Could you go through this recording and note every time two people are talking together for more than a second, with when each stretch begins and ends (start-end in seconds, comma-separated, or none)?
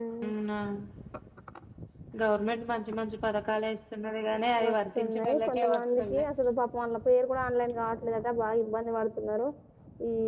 4.7-6.2